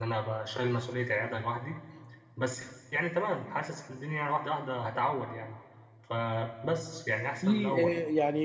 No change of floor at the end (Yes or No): No